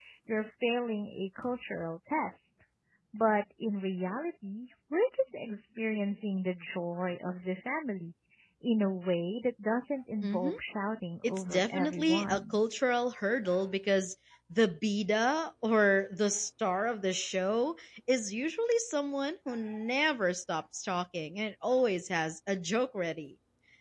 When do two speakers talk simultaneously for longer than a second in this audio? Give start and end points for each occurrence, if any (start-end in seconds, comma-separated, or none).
11.2-12.6